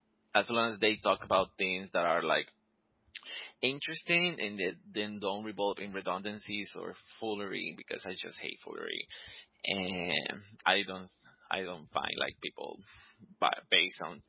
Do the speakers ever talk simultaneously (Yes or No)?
No